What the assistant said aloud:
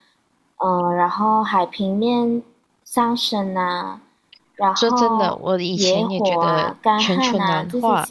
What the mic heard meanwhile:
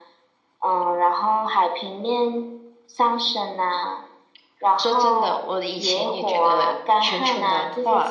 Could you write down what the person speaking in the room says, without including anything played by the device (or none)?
none